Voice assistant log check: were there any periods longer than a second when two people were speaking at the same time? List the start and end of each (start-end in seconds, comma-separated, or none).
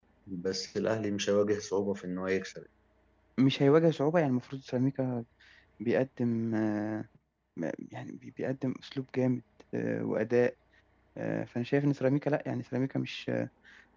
none